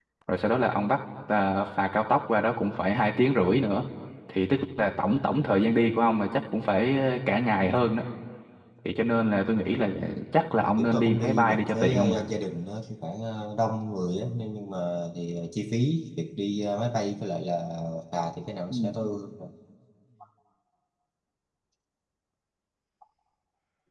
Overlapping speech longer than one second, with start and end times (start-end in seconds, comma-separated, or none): 10.8-12.2